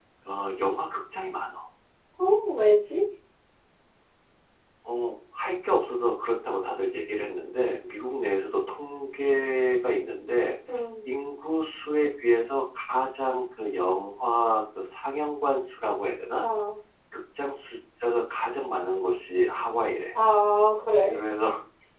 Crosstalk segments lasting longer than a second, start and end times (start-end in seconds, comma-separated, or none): none